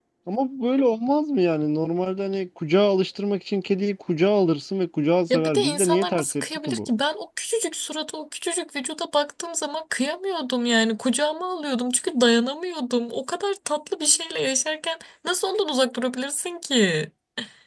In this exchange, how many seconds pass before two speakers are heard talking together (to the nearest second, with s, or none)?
5 s